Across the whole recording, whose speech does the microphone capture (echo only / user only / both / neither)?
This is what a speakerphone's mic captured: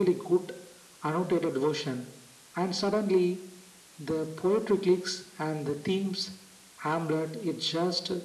echo only